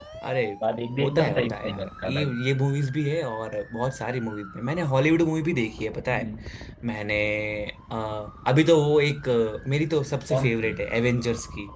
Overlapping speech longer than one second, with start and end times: 1.0-2.3

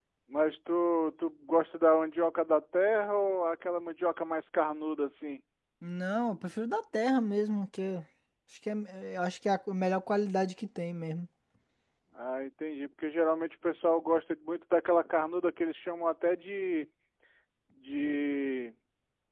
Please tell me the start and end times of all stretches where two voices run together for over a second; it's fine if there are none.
none

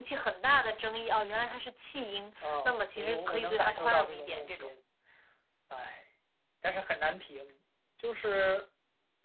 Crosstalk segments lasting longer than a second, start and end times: 2.4-4.7

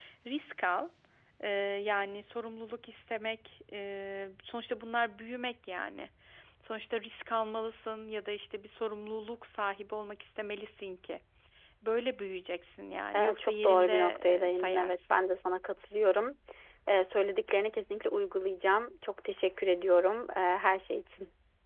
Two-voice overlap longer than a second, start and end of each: 13.1-15.1

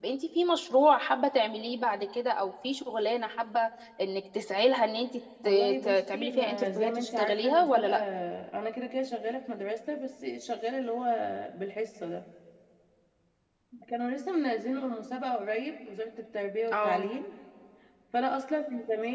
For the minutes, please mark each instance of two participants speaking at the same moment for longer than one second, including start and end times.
5.5-7.9

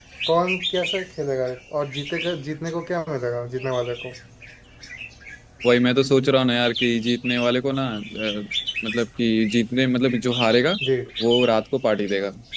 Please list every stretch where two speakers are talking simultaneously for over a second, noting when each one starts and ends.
none

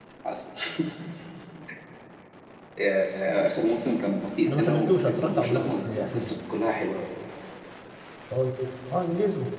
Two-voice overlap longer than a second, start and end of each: 4.5-6.3

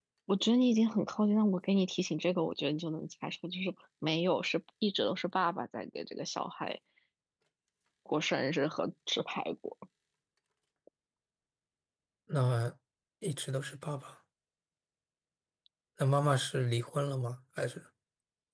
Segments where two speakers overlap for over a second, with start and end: none

